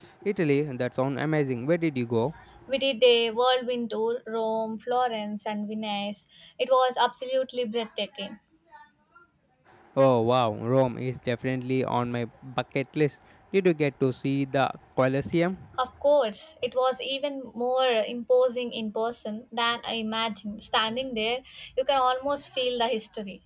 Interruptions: none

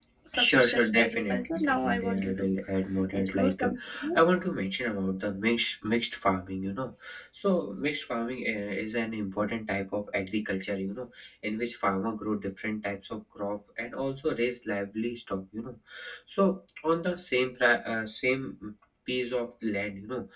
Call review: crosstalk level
present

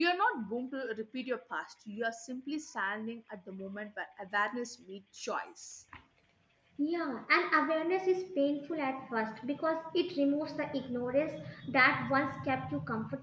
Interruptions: none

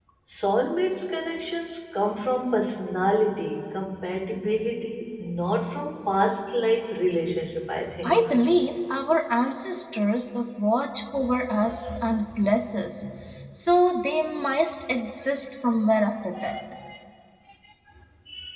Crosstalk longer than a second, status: none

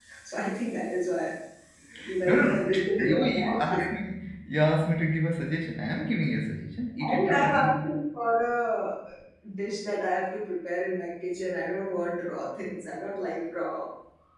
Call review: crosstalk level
present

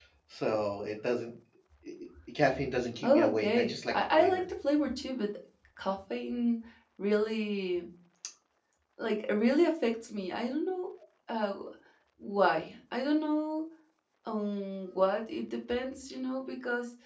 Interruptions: present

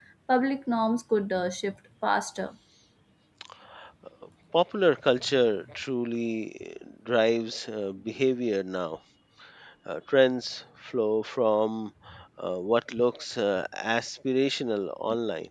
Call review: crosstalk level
none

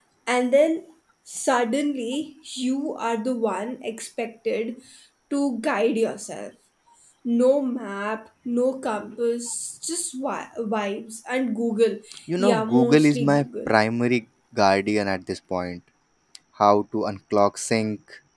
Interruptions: present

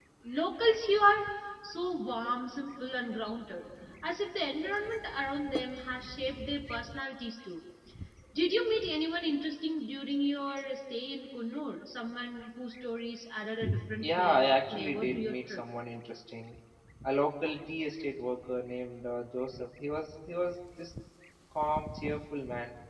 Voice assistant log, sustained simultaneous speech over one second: present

